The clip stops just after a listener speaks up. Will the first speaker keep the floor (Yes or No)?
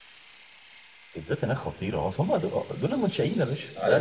No